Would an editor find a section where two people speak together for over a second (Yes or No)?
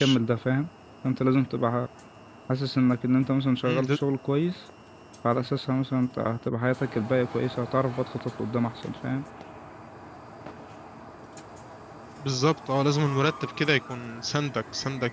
No